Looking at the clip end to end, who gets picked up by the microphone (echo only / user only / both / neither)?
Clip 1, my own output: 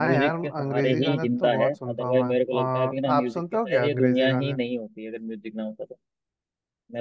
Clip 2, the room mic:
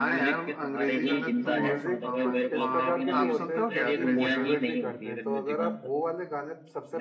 both